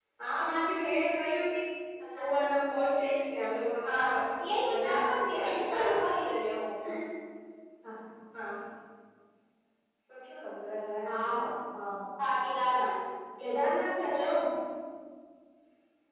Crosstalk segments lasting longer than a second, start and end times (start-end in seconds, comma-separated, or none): 4.6-5.9